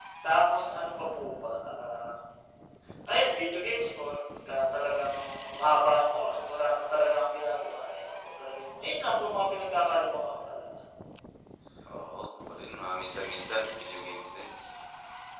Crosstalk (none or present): none